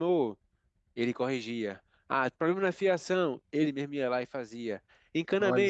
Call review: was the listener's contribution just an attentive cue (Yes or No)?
Yes